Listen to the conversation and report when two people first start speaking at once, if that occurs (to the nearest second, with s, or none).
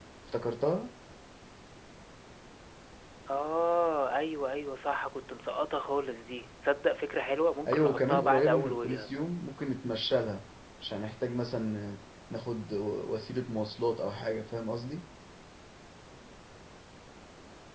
8 s